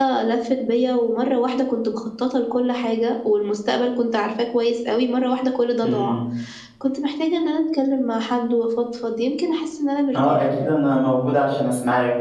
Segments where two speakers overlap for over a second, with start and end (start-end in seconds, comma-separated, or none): none